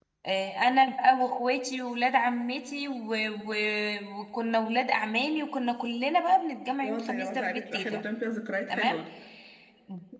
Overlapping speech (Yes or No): Yes